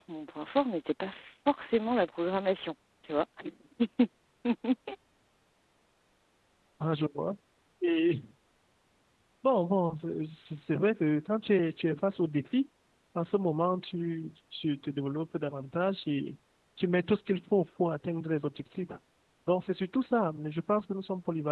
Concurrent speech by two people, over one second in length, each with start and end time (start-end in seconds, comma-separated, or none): none